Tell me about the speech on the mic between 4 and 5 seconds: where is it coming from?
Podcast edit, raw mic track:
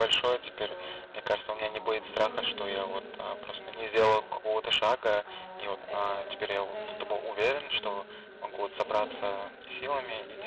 both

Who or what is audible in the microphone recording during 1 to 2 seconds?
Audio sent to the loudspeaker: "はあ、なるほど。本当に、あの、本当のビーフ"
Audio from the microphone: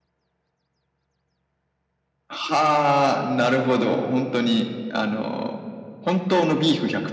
neither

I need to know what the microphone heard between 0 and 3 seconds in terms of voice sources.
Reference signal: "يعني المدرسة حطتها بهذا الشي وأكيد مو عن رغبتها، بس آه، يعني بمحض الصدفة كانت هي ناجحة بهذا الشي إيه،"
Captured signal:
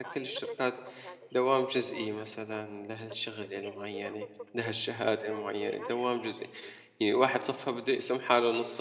both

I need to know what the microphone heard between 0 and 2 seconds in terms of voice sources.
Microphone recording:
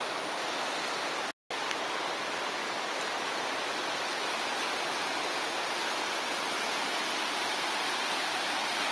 neither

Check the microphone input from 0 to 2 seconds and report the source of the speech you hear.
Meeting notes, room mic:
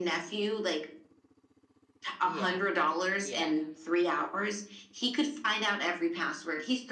echo only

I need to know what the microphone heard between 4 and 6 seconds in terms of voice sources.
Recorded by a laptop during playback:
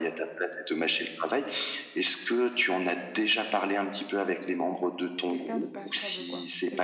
both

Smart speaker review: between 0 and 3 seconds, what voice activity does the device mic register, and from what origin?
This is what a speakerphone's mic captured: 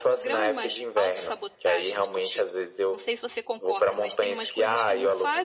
both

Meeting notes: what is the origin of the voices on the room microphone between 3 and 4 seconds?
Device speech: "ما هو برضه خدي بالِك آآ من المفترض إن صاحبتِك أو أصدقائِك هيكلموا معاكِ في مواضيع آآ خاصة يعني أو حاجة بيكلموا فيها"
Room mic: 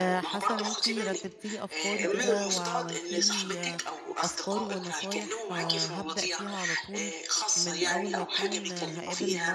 both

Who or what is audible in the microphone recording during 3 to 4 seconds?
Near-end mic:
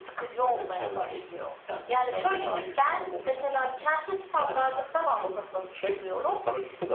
both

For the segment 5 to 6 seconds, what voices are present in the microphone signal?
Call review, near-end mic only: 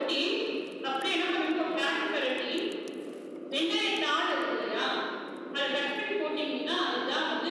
echo only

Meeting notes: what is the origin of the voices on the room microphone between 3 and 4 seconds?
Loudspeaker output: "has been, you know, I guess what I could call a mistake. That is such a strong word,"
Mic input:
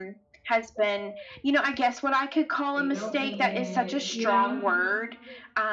both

